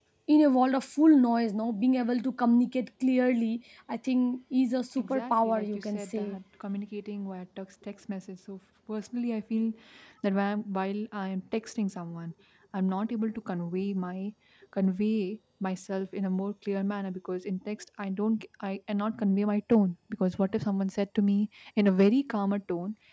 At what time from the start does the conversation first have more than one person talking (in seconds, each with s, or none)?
5.0 s